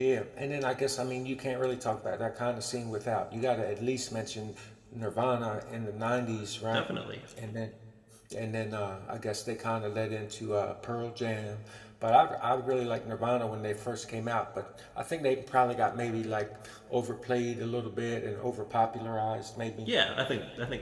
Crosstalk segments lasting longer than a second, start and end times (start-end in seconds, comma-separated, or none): none